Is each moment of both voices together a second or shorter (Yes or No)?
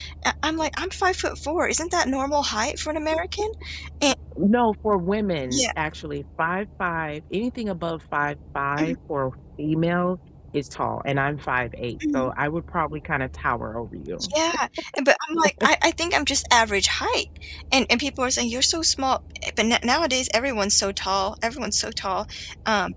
Yes